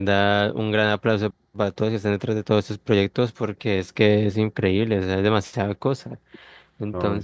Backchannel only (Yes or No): Yes